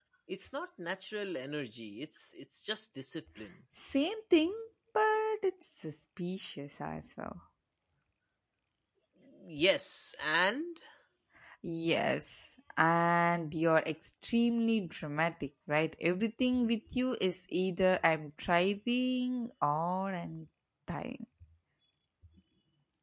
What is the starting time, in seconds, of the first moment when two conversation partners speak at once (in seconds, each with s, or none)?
none